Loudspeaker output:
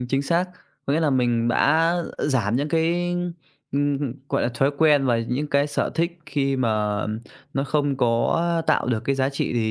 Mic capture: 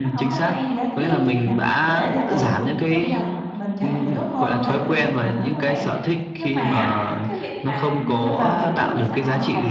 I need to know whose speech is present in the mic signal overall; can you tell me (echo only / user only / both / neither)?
both